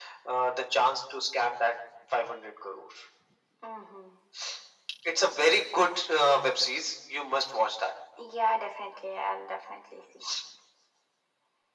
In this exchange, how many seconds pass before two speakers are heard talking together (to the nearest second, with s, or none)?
none